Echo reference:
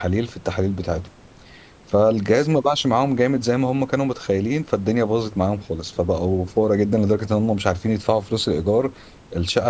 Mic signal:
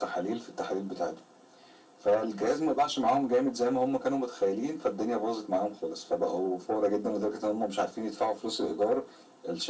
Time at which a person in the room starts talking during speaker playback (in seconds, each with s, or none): none